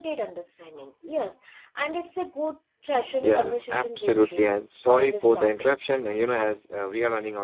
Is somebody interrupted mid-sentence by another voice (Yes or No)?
Yes